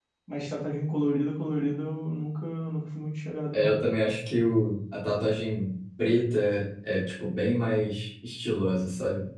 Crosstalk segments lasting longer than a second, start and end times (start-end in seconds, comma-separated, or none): none